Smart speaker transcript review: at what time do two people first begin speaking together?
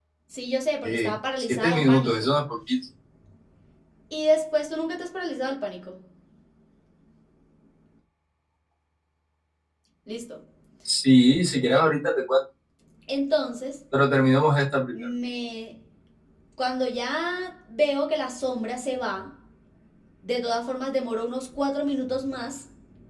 1 s

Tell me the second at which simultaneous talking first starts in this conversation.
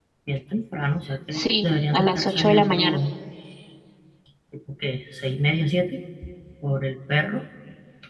1 s

